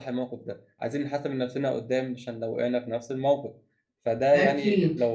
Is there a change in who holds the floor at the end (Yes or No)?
No